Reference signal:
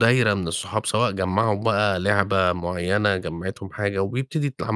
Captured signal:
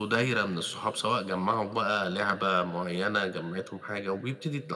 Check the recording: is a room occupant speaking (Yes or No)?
No